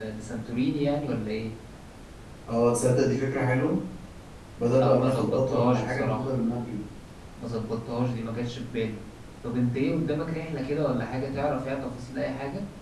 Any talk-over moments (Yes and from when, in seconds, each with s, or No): Yes, from 4.8 s